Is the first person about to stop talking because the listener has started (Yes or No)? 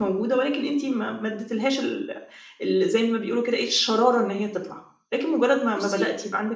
No